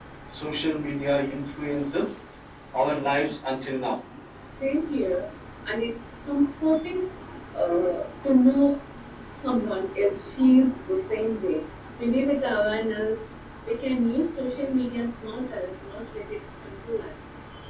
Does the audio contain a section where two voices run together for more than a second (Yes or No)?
No